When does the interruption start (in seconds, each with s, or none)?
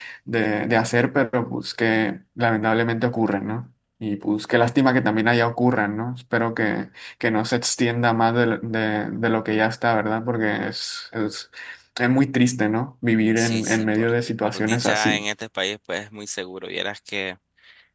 13.4 s